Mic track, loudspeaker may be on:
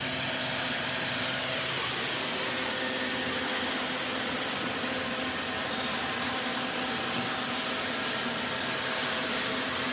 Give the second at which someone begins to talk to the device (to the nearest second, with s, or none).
none